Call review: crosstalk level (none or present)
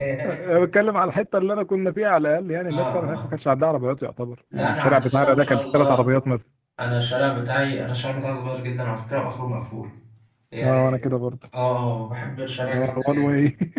present